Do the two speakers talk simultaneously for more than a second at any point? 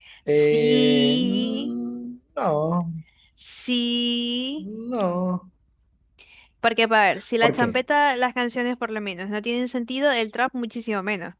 Yes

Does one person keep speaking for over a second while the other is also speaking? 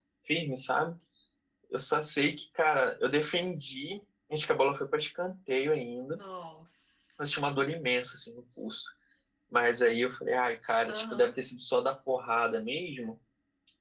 No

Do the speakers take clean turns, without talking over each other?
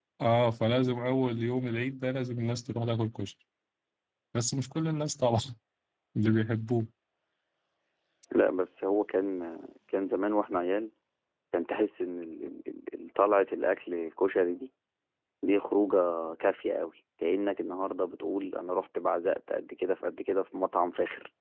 Yes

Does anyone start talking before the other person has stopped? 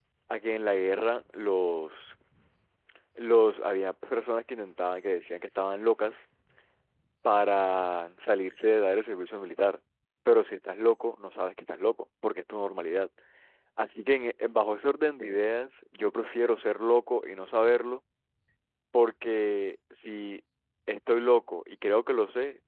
No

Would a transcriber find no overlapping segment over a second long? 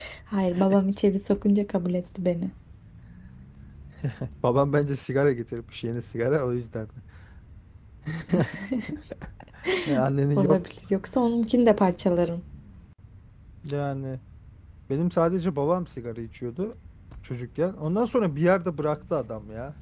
Yes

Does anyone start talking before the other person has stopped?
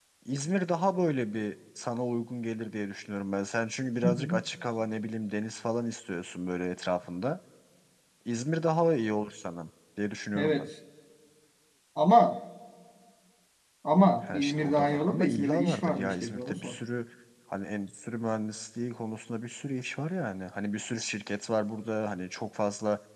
Yes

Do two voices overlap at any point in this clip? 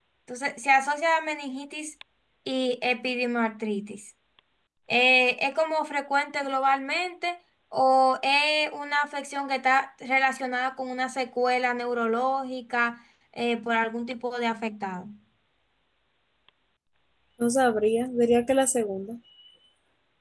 No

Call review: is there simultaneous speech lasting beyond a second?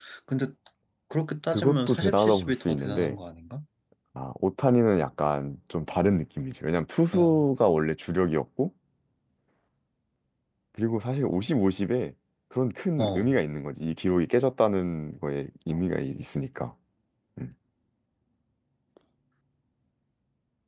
Yes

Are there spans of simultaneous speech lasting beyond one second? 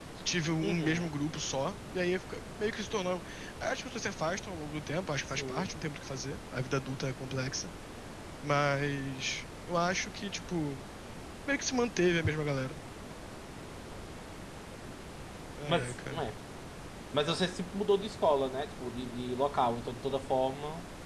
No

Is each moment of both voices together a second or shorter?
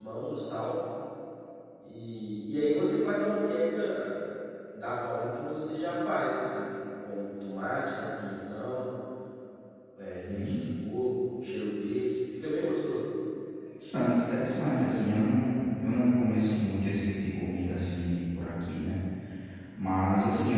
Yes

